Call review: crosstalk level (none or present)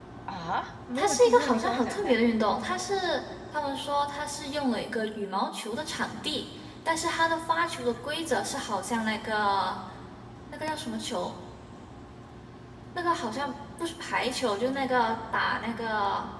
present